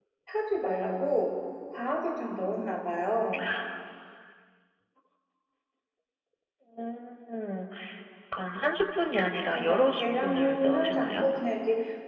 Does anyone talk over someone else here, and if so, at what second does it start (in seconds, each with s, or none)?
9.7 s